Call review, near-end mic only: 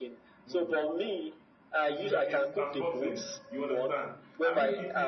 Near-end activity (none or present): present